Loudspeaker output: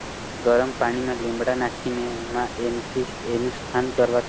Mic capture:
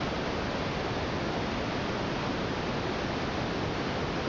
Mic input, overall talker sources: neither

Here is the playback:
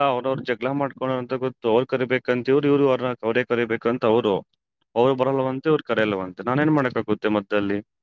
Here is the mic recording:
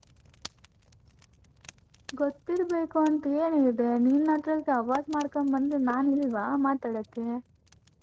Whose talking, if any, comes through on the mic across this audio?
user only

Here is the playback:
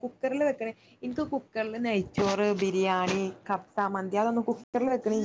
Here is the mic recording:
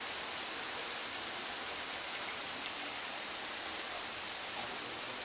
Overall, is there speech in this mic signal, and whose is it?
neither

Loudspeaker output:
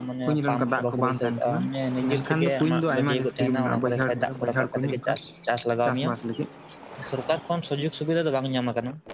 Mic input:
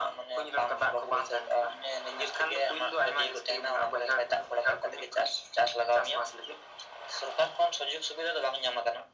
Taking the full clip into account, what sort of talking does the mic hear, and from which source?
echo only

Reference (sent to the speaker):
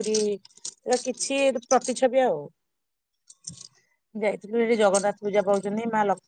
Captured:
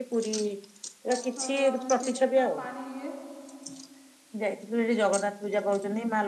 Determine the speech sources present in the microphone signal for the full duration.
both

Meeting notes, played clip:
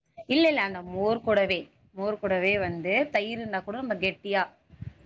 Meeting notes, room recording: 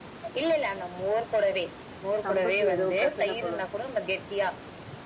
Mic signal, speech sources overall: both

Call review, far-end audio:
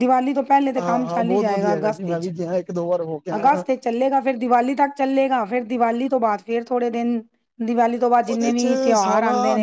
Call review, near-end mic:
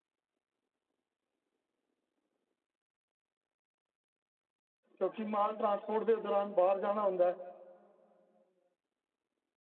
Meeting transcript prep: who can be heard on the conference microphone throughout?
user only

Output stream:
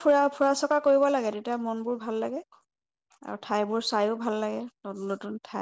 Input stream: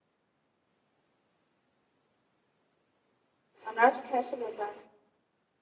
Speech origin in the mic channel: user only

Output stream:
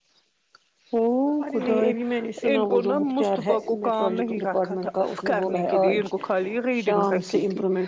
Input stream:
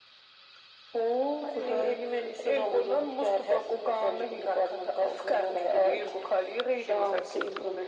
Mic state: echo only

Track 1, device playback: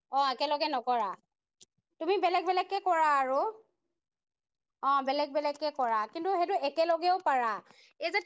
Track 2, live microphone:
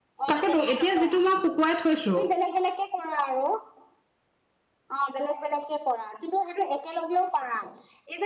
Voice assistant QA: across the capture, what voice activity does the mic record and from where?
both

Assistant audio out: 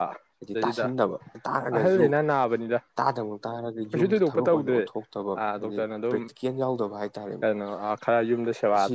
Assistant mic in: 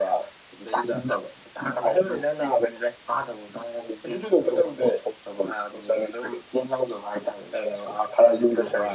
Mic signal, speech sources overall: both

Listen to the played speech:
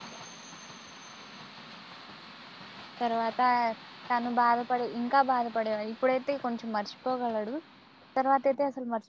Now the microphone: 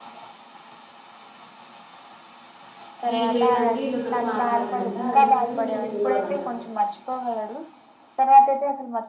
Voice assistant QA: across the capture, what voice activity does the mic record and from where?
both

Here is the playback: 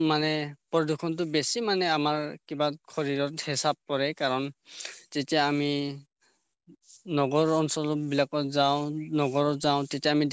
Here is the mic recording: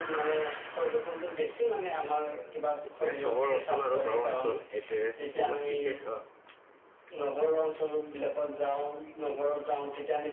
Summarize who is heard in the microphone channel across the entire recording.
both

